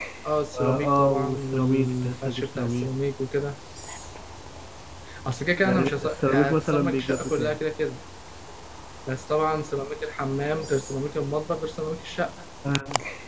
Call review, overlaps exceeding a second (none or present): present